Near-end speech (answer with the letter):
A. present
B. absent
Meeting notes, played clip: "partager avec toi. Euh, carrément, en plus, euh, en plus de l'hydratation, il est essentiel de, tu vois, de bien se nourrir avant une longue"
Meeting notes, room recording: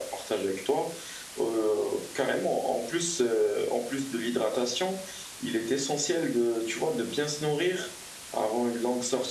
B